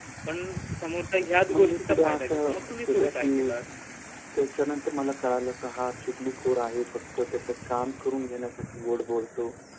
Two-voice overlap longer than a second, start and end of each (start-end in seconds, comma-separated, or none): 1.5-3.5